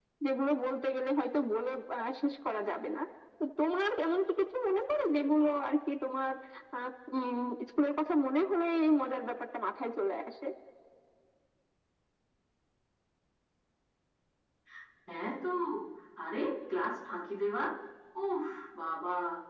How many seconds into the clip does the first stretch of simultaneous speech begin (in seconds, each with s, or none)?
none